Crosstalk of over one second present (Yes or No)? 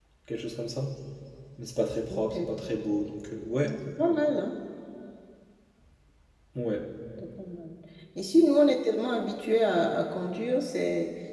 No